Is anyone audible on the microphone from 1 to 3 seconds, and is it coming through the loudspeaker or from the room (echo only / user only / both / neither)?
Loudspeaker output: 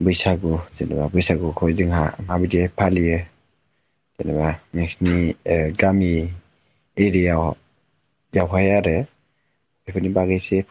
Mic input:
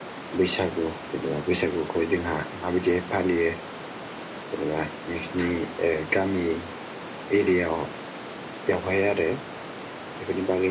echo only